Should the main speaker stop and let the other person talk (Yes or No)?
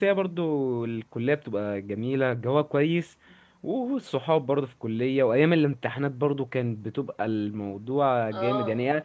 No